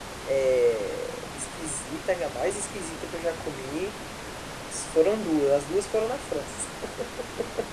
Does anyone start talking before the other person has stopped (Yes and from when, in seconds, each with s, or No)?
No